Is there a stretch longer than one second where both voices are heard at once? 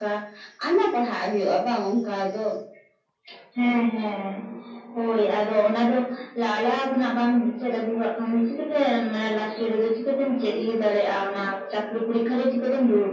No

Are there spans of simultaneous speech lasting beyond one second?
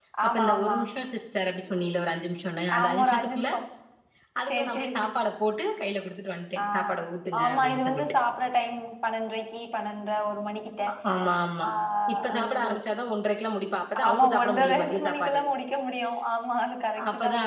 Yes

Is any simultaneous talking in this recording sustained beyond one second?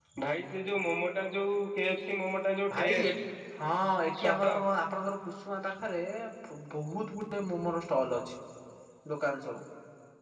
No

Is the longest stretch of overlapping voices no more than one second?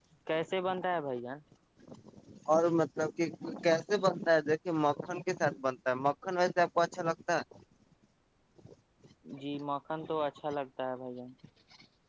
Yes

